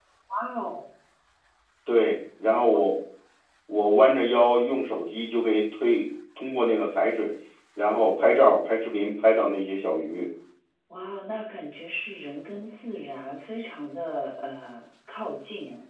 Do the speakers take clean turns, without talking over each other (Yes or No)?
Yes